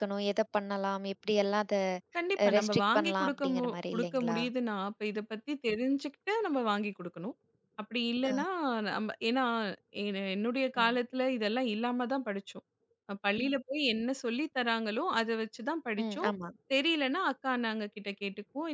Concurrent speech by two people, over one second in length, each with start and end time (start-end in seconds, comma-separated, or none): 2.5-4.4